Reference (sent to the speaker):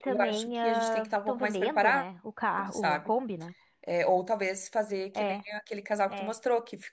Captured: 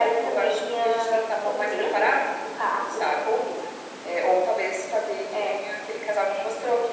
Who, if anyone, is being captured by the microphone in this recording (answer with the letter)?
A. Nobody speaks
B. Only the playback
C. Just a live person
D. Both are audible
B